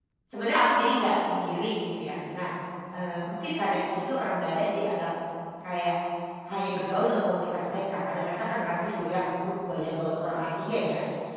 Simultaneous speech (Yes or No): No